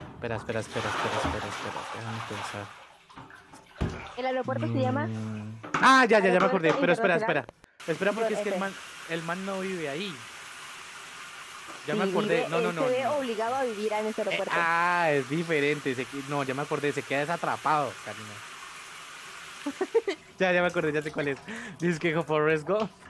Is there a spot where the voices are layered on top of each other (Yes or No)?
Yes